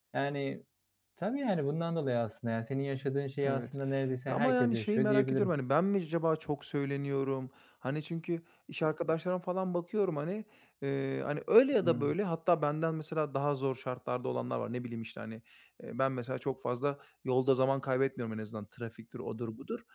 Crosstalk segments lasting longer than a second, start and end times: 4.3-5.5

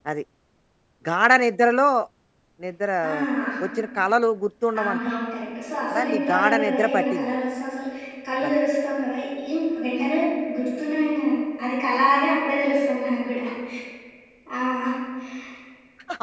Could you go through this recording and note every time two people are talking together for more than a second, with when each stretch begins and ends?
5.9-7.3

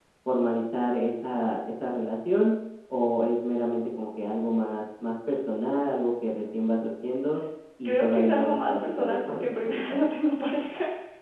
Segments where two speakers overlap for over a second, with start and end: 7.8-10.0

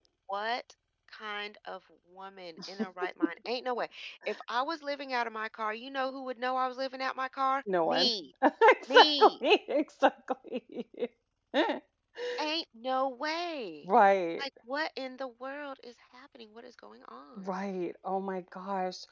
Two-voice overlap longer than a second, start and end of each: none

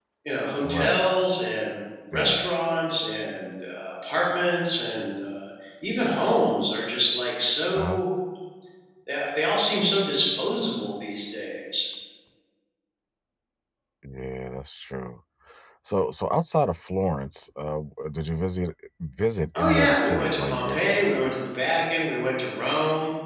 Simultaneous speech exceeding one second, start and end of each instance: 19.6-21.2

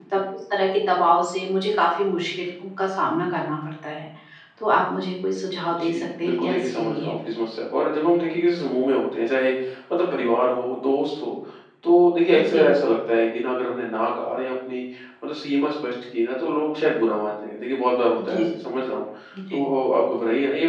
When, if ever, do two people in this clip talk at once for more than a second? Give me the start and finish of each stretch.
5.7-7.2

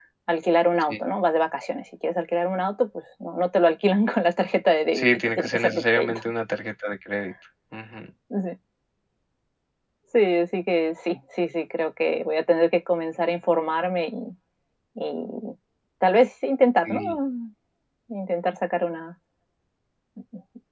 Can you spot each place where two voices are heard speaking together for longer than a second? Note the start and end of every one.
4.9-6.2

